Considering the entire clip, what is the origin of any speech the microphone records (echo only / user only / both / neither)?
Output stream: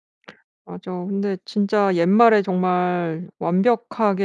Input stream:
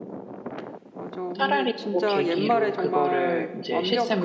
both